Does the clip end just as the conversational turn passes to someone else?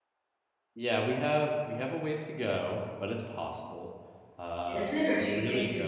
Yes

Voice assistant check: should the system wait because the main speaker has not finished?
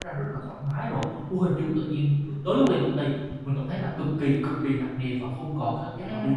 No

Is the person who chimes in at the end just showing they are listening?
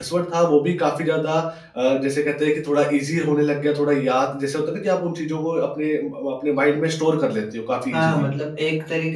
No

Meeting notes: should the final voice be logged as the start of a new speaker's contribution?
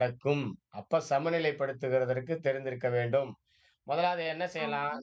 Yes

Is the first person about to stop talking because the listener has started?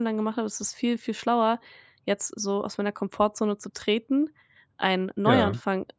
No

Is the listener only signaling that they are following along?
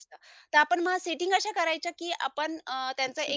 Yes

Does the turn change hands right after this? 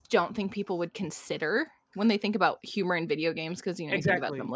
Yes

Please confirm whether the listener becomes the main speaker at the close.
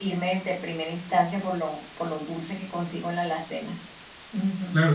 Yes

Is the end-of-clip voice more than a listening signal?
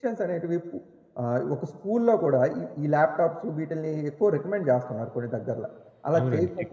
Yes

